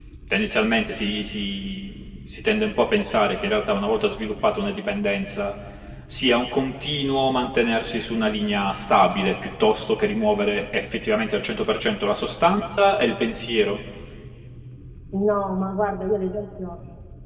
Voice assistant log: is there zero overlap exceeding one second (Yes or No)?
Yes